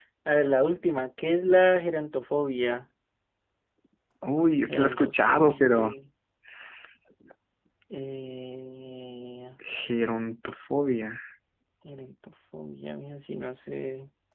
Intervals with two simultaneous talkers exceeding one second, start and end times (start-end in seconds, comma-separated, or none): 4.7-5.9